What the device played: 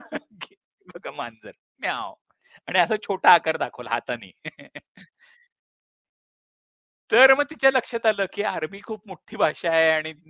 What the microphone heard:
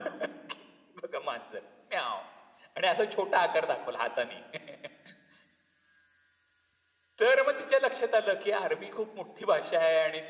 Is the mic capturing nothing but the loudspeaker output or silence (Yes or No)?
Yes